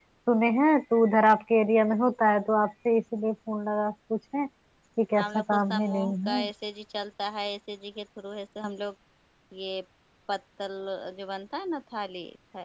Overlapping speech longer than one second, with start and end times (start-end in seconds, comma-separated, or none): 5.2-6.4